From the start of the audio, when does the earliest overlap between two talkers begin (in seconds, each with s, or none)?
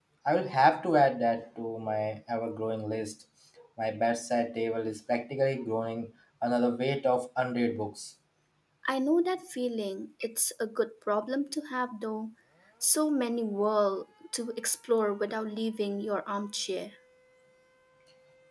none